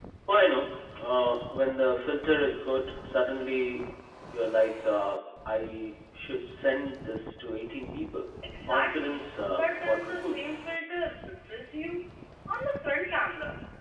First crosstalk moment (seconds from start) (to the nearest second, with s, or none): 9 s